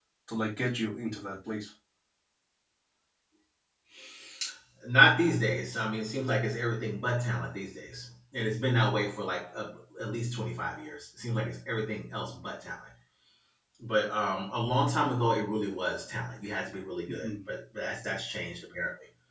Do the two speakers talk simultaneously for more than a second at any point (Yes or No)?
No